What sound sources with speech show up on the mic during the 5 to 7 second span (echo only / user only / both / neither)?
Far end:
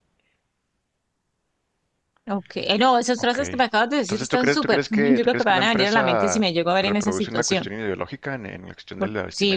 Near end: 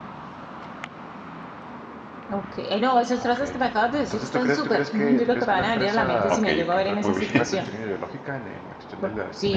both